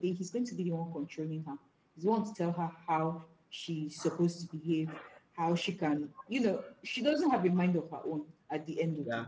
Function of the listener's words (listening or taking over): listening